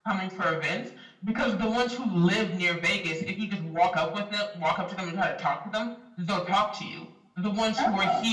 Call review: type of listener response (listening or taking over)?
listening